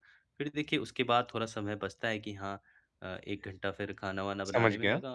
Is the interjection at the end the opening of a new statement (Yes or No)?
No